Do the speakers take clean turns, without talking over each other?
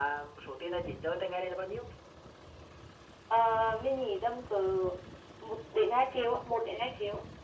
Yes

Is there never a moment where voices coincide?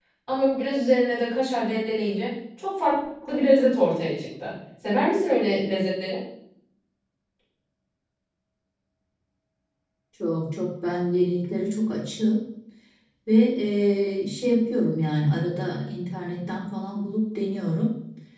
Yes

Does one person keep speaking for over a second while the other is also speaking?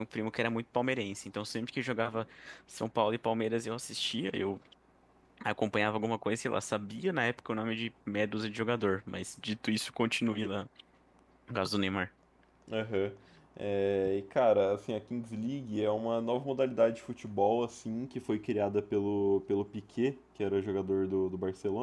No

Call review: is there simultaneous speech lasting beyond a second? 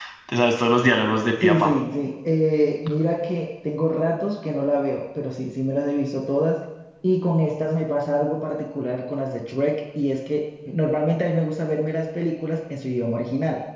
No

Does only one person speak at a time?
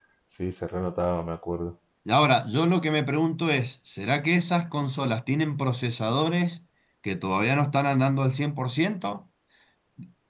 Yes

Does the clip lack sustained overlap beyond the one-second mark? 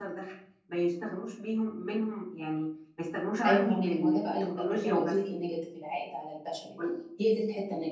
No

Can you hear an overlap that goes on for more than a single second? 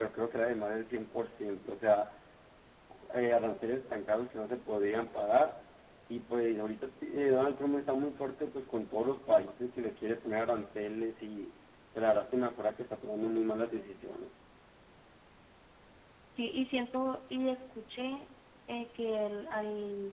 No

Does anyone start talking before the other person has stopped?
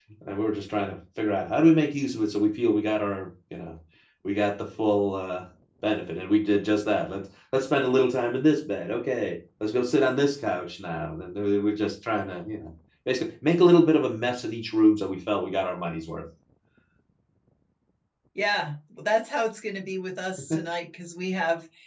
No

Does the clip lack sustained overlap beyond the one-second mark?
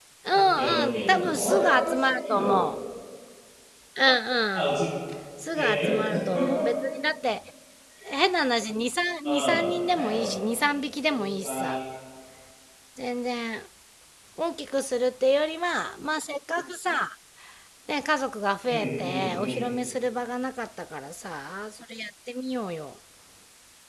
No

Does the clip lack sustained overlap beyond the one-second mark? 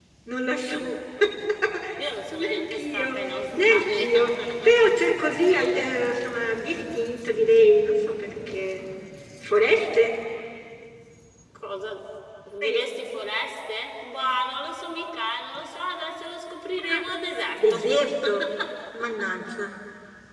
No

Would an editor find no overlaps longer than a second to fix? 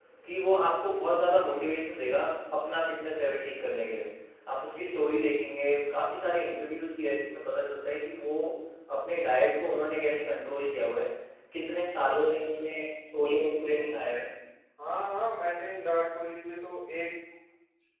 Yes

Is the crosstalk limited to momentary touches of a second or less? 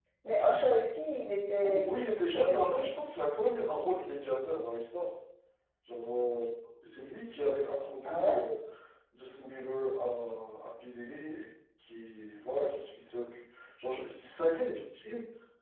No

